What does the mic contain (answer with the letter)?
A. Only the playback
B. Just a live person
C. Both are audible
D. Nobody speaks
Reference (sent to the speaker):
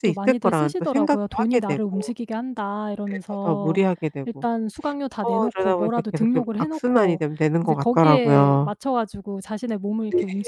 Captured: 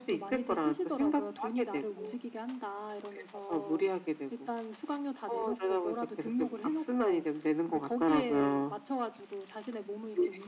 A